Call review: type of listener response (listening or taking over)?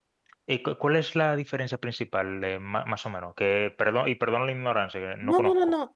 taking over